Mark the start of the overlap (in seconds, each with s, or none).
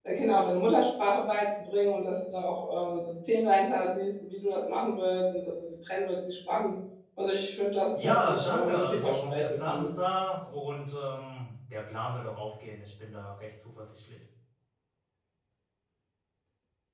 8.0 s